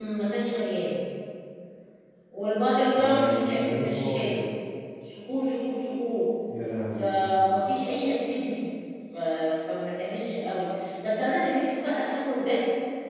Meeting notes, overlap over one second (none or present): present